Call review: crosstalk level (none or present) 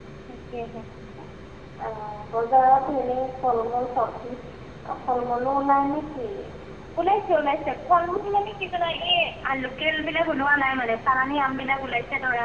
none